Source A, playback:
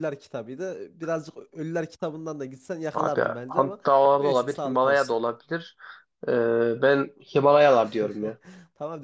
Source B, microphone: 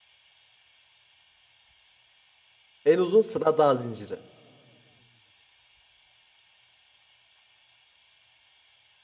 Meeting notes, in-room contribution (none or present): present